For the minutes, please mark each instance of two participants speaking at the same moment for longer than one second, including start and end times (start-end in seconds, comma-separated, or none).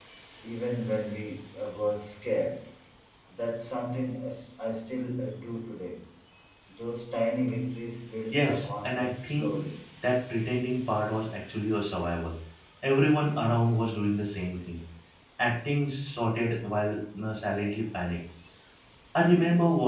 8.3-9.6